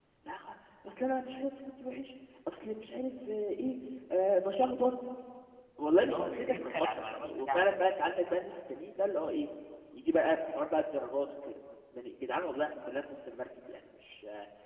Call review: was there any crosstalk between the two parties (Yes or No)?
Yes